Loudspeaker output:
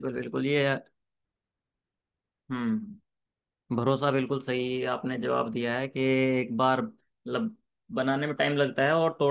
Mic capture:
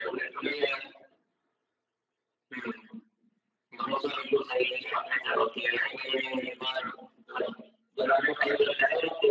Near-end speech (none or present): none